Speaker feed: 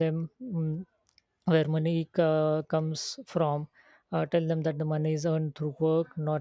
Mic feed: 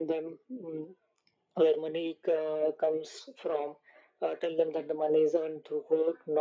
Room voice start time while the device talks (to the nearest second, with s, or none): none